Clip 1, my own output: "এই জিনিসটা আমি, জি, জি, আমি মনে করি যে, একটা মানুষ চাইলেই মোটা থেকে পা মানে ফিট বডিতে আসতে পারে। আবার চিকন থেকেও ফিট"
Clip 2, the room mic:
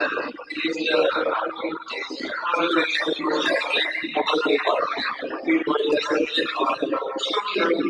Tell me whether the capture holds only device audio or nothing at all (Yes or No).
Yes